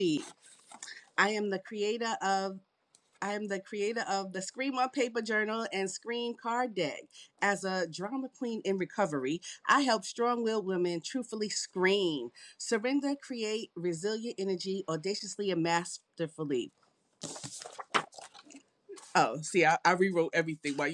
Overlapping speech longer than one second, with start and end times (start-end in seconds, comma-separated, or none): none